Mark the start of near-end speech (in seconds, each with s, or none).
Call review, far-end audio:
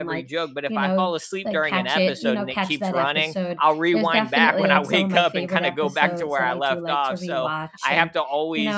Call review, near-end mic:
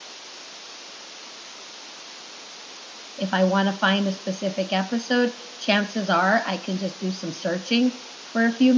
3.2 s